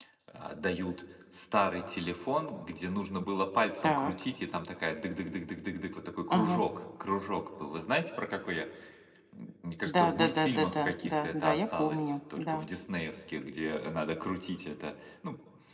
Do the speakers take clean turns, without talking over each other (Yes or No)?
No